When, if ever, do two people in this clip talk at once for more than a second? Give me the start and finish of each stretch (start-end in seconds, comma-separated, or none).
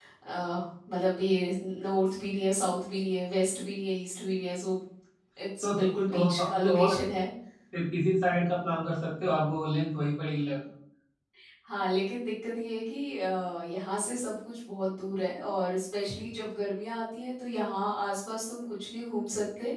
5.6-7.0